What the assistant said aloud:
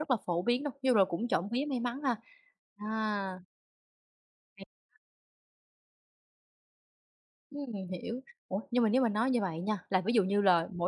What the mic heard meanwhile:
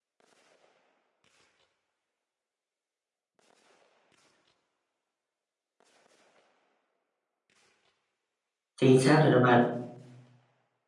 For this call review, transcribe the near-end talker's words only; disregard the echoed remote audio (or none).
chính xác rồi đó bạn.